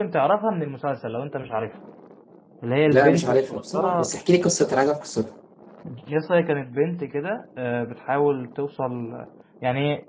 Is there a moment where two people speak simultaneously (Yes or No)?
Yes